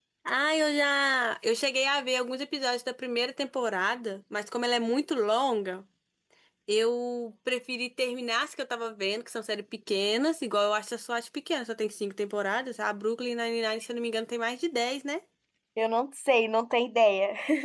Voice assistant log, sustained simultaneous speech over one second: none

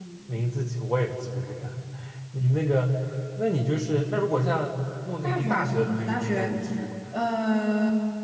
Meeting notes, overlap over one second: present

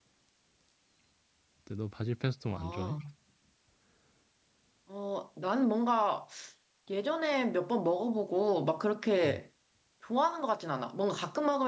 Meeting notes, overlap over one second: none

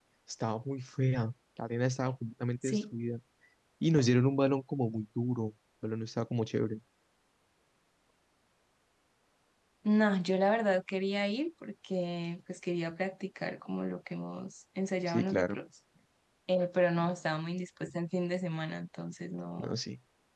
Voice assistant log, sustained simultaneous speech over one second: none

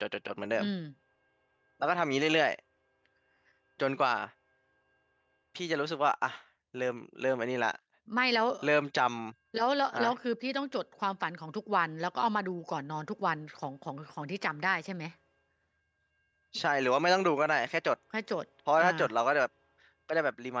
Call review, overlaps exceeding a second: none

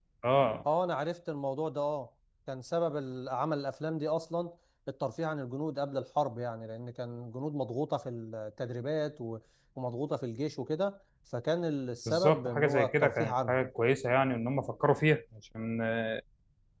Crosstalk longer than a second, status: present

